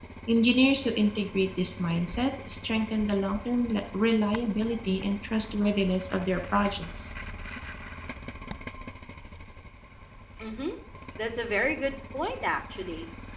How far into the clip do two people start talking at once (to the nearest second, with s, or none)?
none